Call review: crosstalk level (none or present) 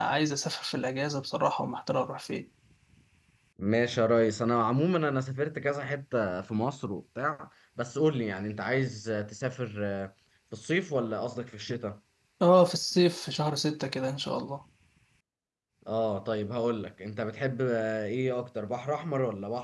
none